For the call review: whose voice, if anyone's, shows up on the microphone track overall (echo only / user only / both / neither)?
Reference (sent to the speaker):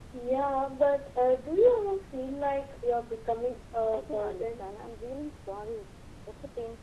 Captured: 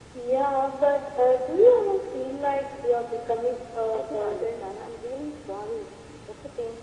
echo only